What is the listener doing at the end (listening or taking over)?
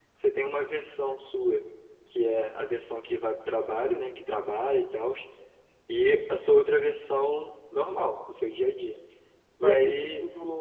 taking over